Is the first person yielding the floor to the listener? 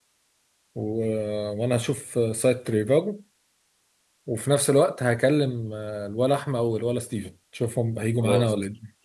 Yes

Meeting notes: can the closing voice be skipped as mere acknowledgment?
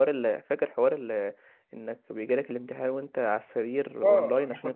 No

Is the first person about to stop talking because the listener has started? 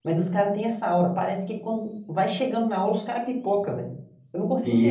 Yes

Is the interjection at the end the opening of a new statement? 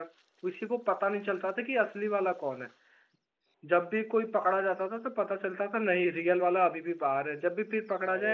No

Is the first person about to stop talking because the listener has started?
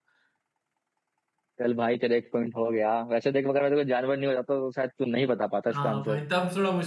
Yes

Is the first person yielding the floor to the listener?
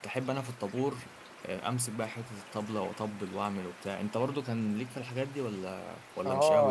Yes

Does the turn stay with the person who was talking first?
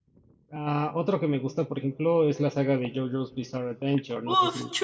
No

